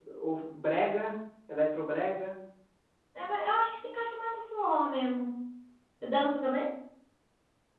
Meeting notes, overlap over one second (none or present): none